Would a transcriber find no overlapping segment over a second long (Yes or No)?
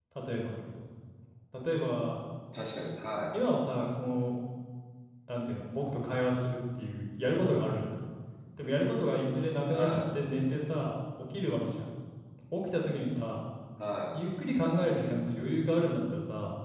Yes